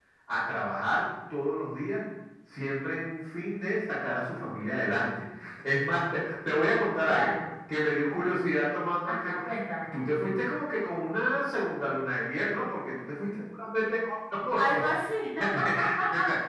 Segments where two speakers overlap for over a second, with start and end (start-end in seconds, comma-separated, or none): none